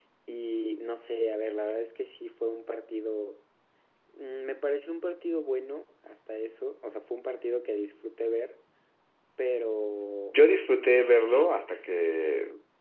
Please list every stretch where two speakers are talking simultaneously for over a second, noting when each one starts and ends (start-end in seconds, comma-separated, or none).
none